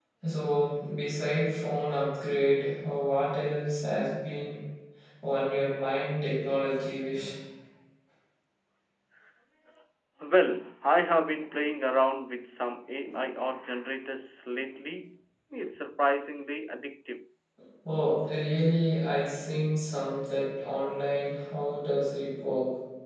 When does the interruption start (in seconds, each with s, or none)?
none